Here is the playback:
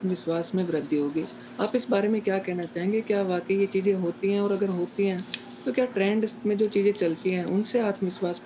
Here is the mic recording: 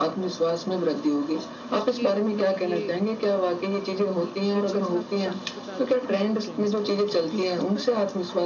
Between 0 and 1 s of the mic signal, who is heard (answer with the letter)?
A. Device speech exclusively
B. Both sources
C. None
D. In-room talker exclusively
A